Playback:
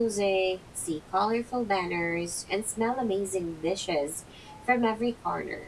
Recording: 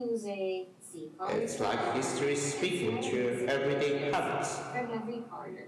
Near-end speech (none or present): present